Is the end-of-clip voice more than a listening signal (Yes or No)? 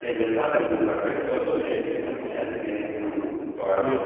Yes